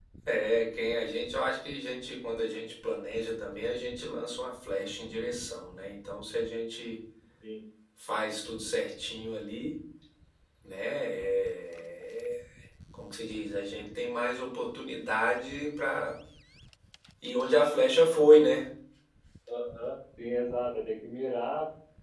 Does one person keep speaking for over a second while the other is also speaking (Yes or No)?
No